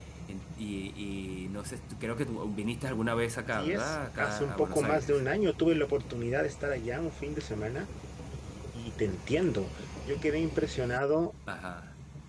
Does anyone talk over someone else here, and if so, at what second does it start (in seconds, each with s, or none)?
3.5 s